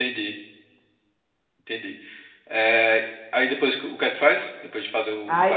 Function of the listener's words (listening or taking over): taking over